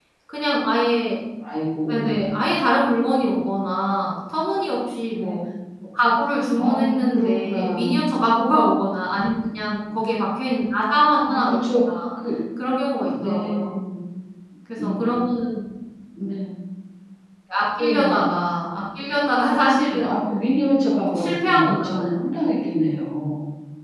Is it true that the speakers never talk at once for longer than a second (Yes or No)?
No